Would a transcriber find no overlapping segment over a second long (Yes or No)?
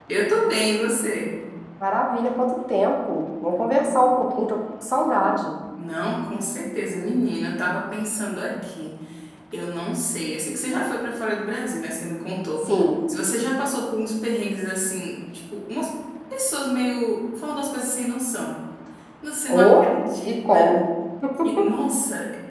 Yes